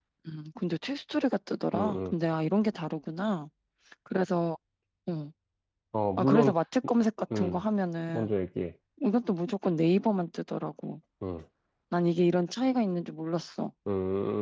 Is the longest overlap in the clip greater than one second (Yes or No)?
No